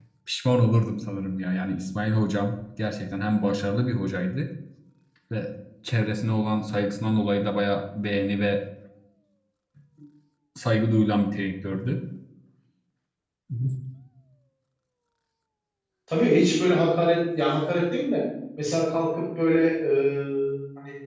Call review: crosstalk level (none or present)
none